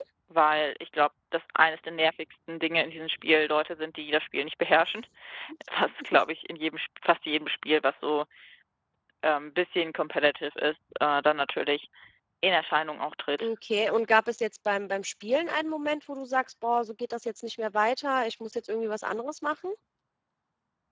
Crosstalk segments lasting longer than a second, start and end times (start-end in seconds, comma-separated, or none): none